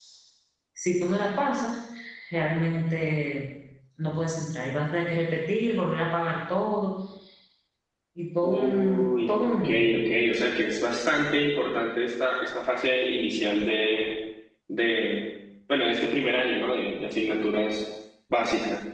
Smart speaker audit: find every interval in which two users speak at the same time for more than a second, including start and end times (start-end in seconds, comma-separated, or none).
8.4-9.9